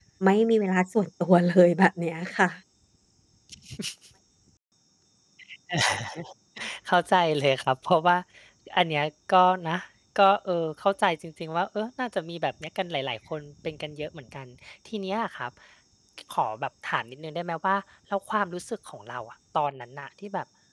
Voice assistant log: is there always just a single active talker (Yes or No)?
Yes